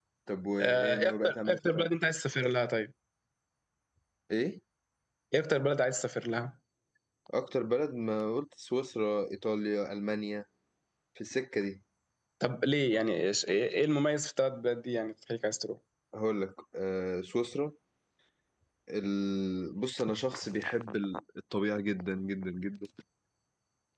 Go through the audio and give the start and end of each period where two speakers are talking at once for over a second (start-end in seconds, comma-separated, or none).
0.6-1.9